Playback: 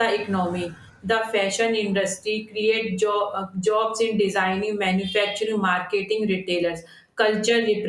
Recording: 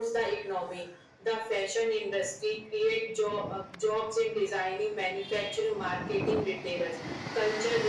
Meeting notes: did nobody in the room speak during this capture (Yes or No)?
Yes